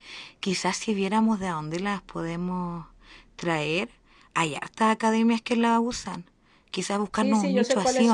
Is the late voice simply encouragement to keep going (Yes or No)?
No